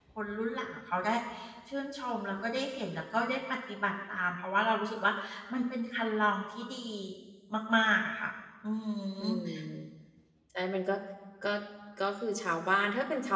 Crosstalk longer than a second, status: none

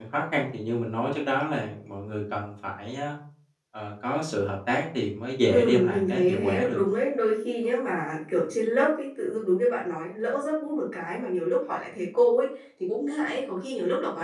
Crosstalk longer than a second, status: present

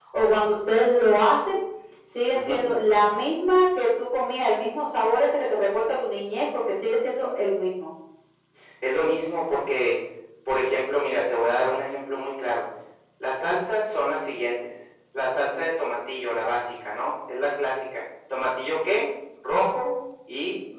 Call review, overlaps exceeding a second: none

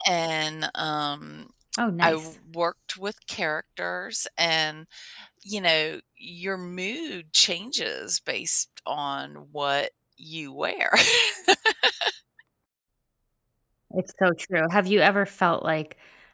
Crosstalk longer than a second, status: none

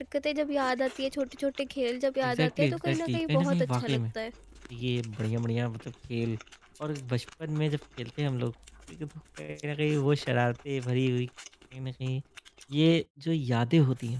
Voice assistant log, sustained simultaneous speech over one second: present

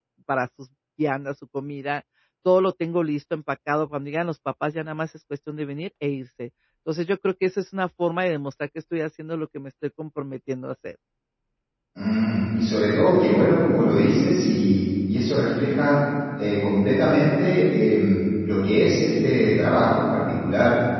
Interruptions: none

